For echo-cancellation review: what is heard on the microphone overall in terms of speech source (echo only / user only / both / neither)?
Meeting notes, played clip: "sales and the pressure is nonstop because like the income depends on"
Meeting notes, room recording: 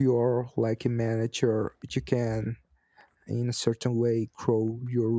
user only